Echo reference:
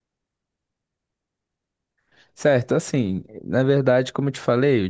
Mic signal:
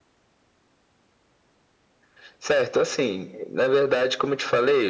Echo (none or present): present